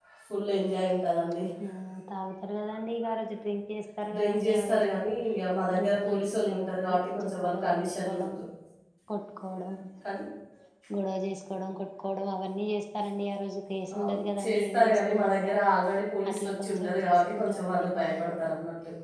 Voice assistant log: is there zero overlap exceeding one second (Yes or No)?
No